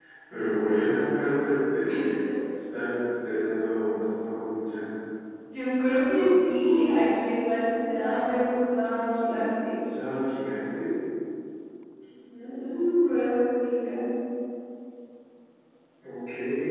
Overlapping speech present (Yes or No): No